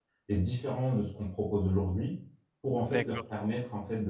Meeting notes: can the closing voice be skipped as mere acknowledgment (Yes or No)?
Yes